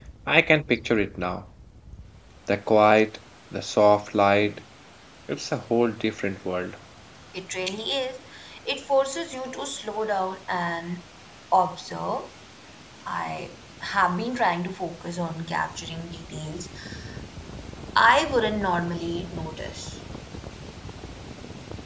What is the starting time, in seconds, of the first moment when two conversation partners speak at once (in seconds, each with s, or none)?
none